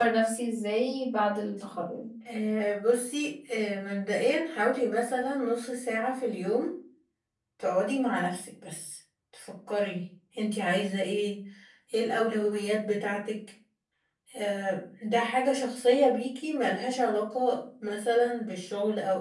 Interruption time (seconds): none

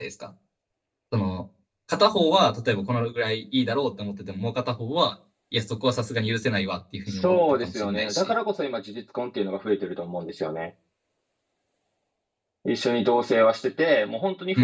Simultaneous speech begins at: 7 s

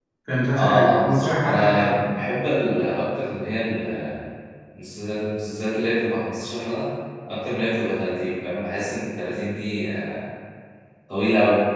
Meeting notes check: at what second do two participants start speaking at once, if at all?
1 s

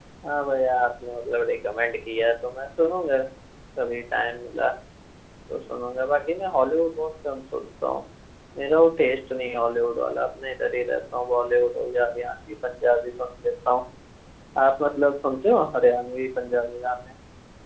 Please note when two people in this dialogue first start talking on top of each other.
none

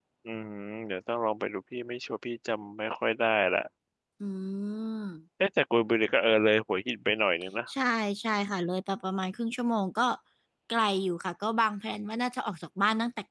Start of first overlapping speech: none

